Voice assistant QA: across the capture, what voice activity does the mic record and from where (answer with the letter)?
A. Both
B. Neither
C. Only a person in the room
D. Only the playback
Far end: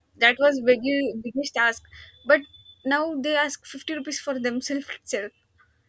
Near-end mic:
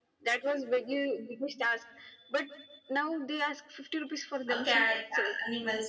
A